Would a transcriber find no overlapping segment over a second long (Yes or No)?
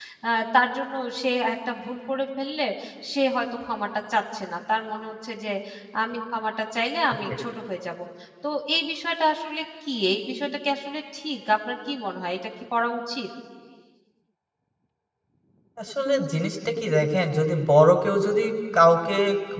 Yes